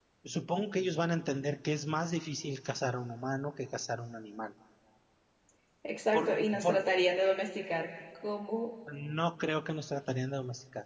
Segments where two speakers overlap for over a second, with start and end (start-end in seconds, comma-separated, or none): none